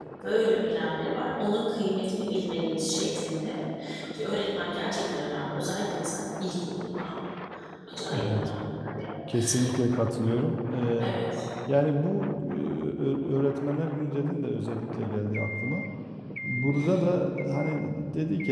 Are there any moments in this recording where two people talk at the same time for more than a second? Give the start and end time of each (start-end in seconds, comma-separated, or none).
none